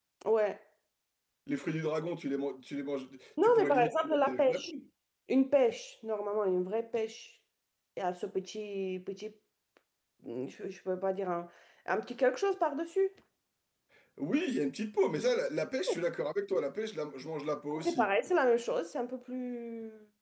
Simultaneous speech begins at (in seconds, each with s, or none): 3.4 s